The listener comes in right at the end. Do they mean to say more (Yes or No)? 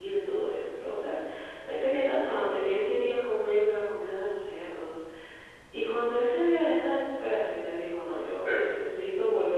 No